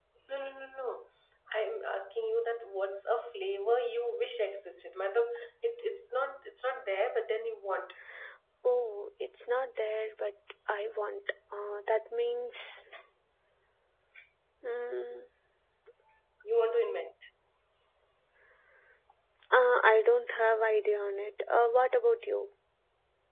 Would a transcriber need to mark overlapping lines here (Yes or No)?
No